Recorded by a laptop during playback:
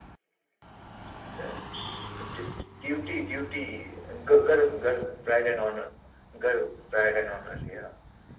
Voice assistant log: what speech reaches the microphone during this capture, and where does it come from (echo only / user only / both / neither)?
echo only